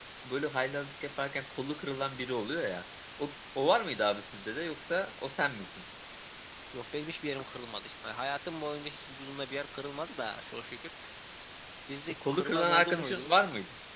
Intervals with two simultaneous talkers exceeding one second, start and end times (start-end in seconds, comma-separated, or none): 12.1-13.4